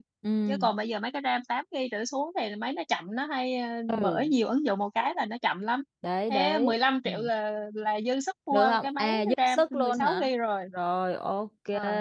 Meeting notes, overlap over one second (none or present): present